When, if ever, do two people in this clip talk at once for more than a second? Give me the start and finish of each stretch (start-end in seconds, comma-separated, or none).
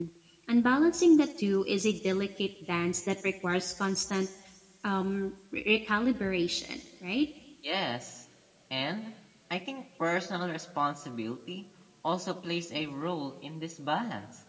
none